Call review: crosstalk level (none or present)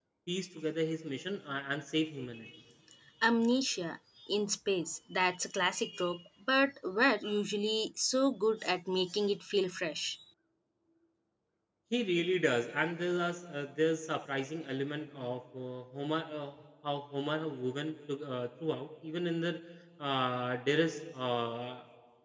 none